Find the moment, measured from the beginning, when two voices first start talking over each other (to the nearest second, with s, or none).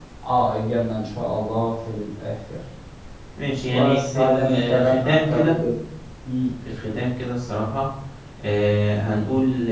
4 s